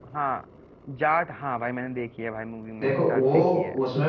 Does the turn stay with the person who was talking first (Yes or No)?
No